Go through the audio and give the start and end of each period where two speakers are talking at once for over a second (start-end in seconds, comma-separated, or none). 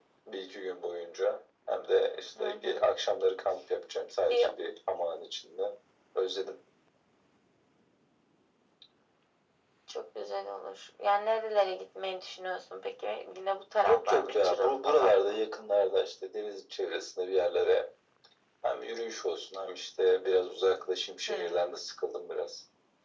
13.8-15.4